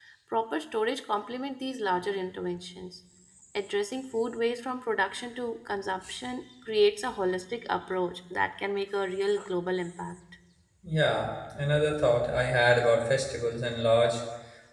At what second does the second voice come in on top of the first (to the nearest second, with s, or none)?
none